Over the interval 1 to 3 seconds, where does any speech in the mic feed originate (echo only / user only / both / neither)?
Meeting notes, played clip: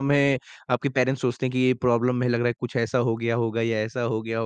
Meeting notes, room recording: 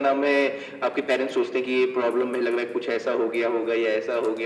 echo only